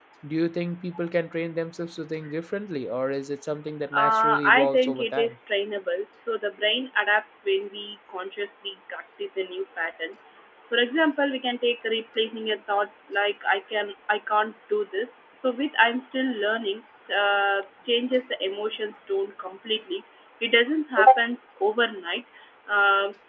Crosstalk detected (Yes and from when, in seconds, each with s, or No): Yes, from 3.9 s